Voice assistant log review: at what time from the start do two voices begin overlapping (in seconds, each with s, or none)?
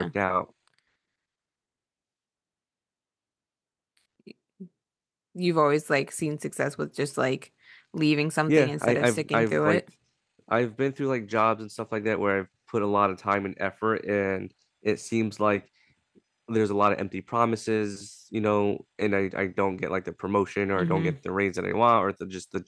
8.5 s